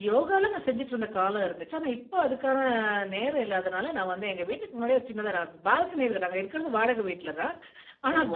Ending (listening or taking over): listening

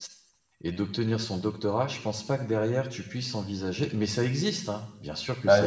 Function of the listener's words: taking over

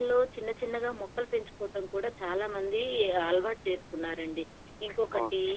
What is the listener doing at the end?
listening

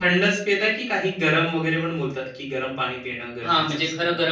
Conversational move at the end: taking over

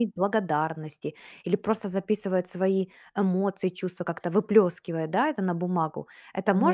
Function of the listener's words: taking over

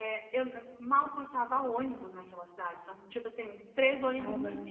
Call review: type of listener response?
listening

